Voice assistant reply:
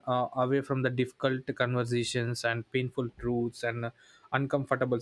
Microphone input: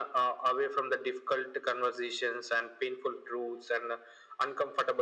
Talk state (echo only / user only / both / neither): echo only